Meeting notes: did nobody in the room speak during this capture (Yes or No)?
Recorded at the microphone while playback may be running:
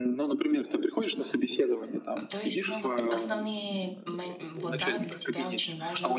No